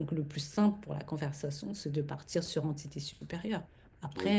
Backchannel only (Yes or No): No